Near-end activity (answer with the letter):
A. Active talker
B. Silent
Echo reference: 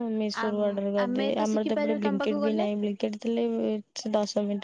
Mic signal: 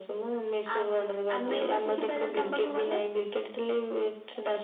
A